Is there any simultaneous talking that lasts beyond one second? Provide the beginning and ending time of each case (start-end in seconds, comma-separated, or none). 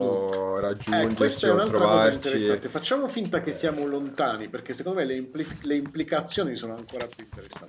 0.9-2.6